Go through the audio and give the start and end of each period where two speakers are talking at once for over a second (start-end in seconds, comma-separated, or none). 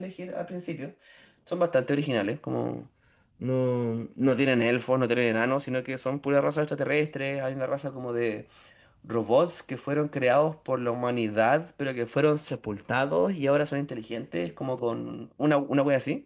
none